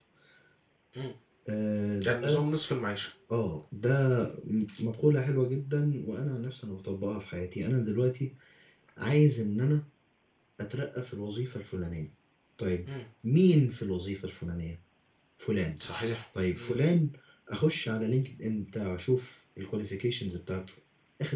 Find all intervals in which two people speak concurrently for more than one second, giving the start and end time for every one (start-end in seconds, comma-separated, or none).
none